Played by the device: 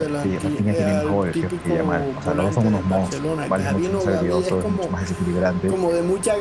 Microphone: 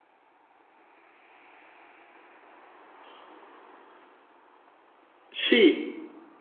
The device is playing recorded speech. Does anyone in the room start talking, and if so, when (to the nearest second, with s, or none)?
5 s